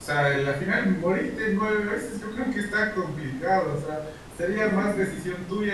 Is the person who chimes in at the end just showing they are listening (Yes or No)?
Yes